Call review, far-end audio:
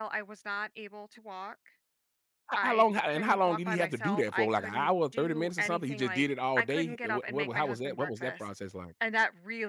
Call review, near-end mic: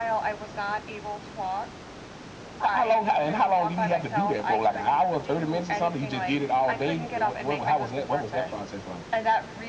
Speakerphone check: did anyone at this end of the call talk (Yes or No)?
No